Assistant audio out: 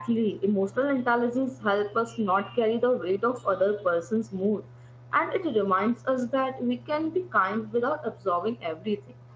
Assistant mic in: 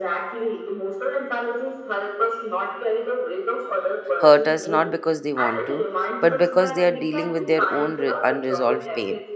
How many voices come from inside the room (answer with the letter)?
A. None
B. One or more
B